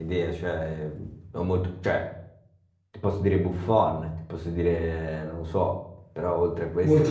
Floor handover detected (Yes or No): Yes